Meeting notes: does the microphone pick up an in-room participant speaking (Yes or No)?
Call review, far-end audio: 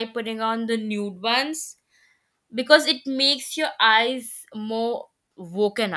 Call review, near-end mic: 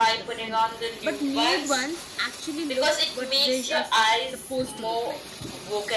Yes